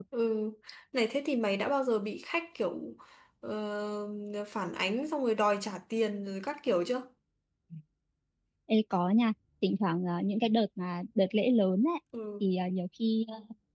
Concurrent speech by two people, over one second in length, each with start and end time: none

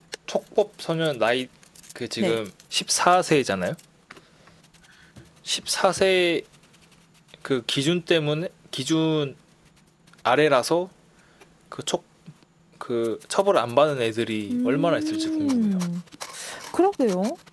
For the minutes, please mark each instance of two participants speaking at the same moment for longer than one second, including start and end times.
14.5-15.7

